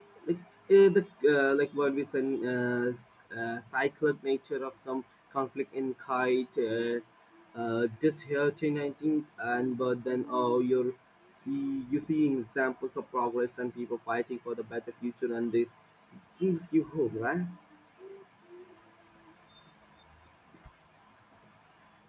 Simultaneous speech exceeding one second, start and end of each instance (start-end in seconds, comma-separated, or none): none